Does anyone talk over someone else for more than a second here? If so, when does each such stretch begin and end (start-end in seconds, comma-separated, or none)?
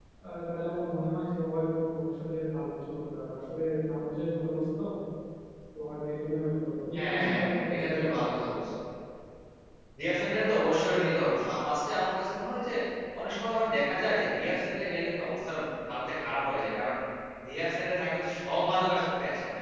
7.0-8.4